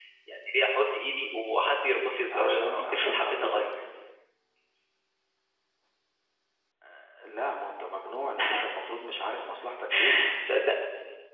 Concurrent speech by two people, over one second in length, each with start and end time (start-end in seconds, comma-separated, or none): 2.3-3.7